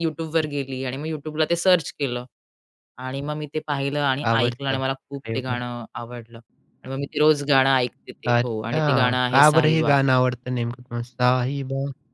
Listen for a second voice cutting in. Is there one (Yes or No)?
Yes